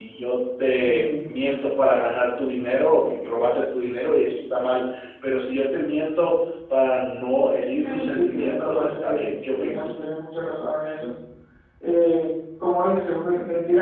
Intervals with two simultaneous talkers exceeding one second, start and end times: 7.7-9.9

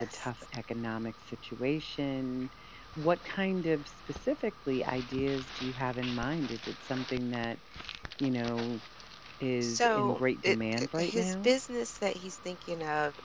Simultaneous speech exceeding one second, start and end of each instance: 9.6-11.5

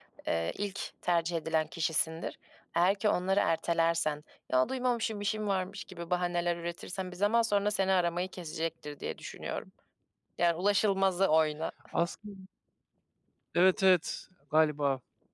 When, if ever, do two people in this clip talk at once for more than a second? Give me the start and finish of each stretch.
none

